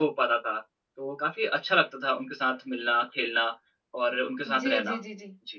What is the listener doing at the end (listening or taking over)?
taking over